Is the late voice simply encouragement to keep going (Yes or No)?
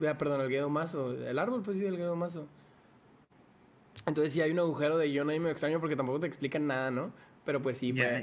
Yes